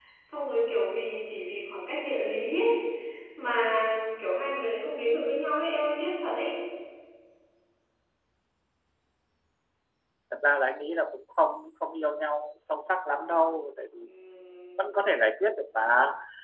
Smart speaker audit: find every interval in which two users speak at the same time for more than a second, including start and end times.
none

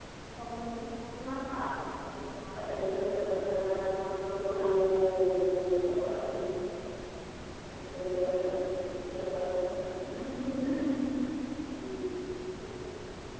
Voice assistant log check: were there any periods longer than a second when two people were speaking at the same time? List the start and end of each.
2.5-4.7

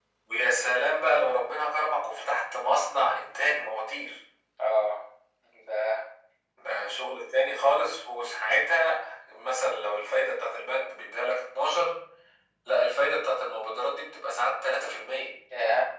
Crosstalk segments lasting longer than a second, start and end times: none

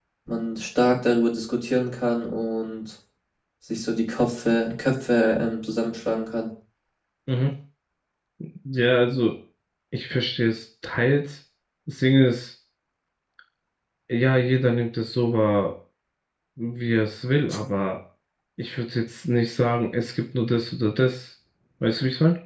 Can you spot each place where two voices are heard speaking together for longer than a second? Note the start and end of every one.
none

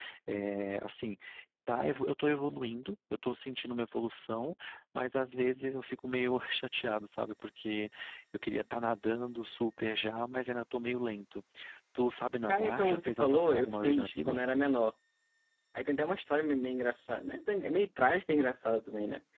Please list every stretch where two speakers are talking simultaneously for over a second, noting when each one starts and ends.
12.5-14.4

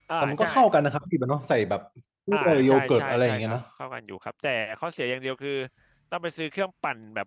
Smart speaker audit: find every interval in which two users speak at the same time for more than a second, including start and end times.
2.3-3.5

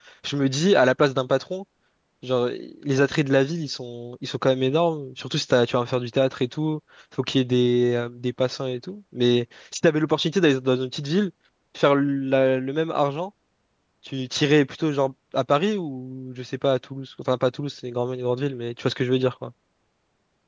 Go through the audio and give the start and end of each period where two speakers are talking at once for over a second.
none

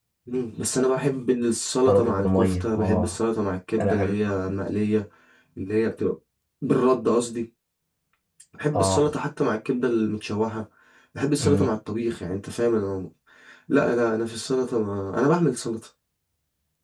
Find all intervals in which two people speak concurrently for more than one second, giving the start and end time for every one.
1.9-3.2

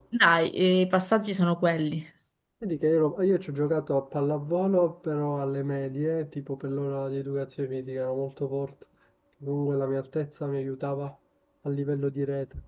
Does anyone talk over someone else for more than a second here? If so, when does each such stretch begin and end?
none

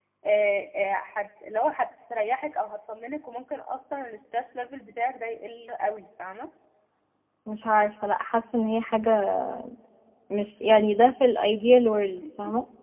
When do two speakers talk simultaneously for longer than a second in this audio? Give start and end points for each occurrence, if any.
none

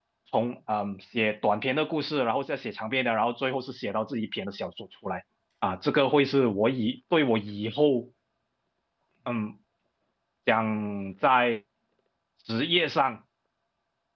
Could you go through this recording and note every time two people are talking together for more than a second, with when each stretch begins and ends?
none

